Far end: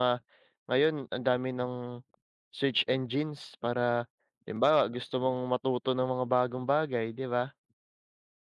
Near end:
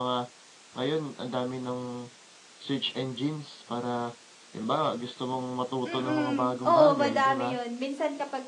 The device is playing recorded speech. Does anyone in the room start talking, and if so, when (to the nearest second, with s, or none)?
6 s